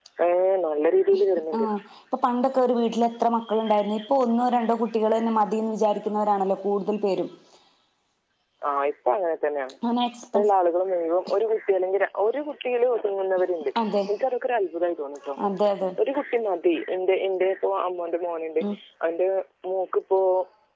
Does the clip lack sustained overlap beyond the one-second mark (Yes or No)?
Yes